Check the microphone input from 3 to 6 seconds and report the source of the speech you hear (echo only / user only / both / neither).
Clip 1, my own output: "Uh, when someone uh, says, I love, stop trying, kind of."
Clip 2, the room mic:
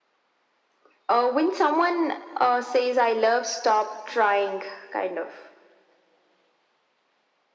echo only